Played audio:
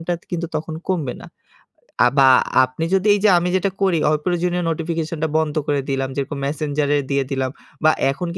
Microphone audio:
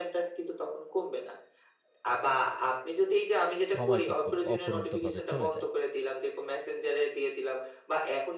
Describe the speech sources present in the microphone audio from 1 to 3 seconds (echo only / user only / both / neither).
echo only